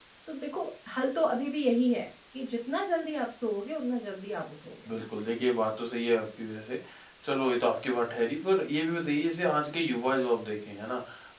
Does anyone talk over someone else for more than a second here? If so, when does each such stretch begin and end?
none

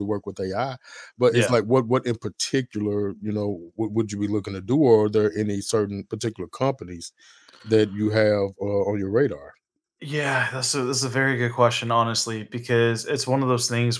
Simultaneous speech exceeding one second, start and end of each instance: none

